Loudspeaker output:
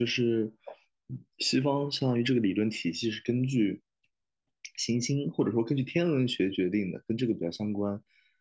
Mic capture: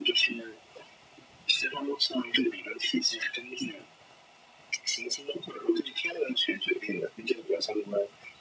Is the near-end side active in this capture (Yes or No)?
No